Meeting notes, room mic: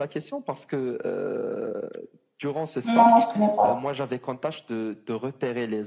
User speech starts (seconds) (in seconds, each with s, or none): 2.8 s